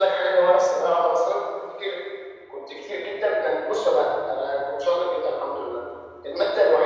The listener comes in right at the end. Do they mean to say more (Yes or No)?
No